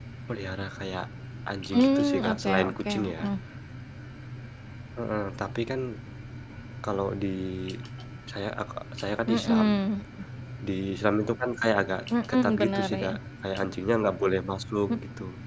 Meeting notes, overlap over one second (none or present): present